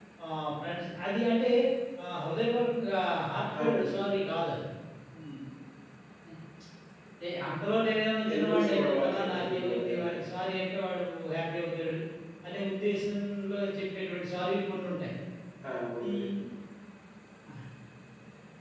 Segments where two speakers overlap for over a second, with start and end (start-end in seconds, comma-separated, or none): 8.3-10.1